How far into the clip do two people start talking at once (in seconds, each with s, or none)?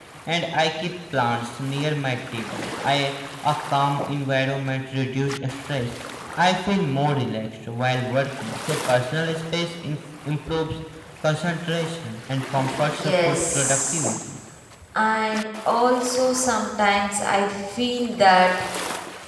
12.8 s